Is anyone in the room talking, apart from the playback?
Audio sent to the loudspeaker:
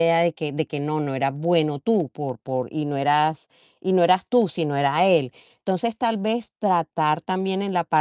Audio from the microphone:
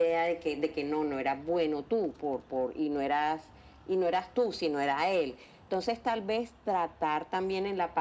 No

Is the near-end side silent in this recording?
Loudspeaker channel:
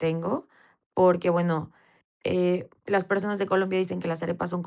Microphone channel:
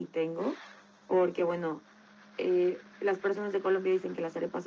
Yes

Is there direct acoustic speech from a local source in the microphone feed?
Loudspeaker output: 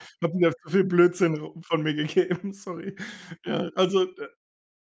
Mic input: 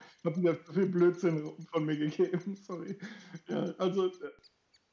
No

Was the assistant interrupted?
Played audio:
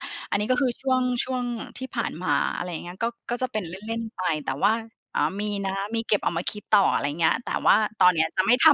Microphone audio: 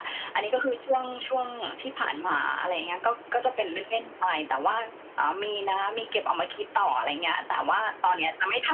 No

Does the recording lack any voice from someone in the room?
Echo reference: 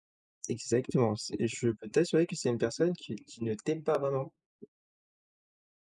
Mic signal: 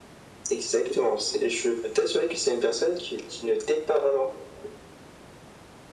Yes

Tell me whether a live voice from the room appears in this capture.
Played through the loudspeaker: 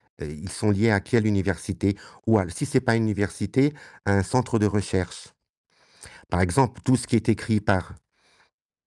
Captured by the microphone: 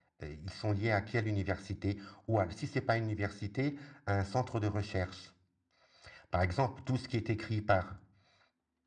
No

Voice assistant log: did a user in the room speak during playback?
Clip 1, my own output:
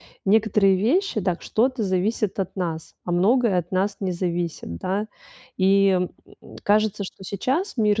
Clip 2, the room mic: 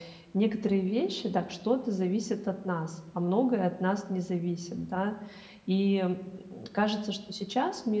No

